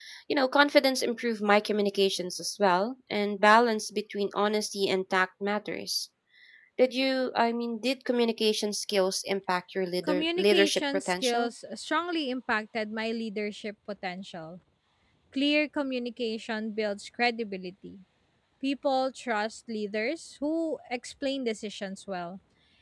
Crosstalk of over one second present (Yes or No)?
Yes